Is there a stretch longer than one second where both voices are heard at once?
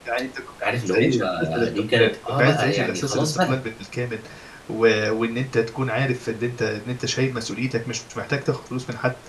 Yes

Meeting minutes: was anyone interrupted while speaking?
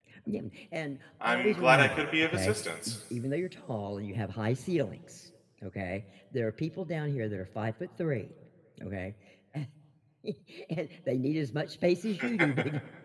Yes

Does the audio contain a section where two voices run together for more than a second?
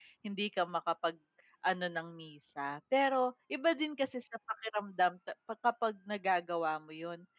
No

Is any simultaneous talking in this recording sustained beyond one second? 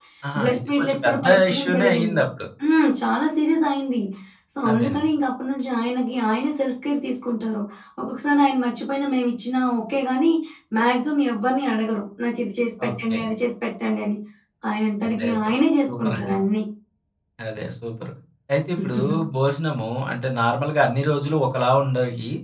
Yes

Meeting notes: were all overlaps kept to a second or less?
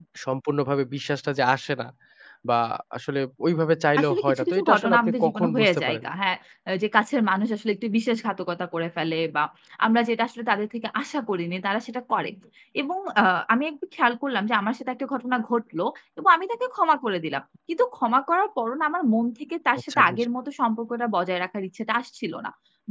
No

